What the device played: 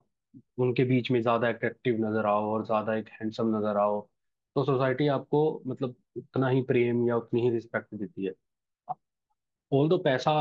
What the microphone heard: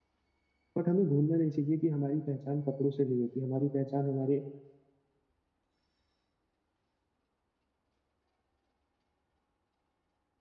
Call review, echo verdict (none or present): none